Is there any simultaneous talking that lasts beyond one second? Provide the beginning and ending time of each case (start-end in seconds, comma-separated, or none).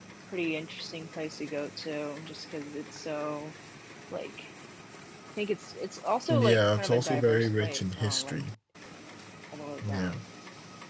6.3-8.4